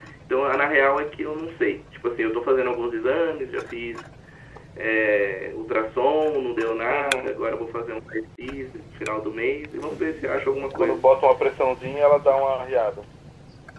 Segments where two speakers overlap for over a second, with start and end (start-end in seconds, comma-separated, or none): none